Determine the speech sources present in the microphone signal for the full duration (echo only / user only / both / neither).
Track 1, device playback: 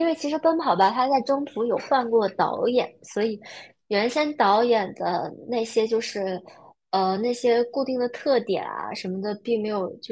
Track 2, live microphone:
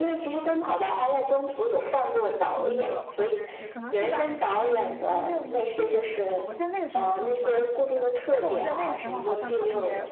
both